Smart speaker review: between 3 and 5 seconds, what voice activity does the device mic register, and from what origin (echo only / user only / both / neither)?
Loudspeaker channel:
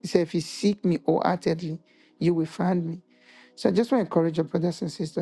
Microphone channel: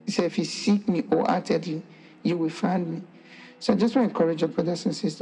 echo only